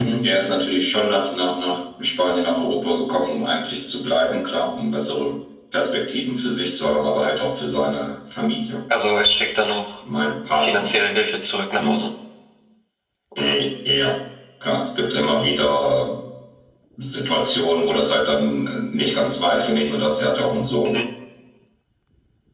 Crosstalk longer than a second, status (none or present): none